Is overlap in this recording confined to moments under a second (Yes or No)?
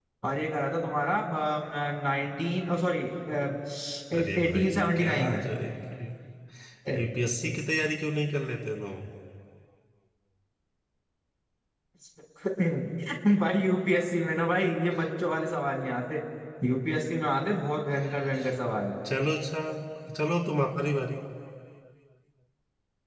No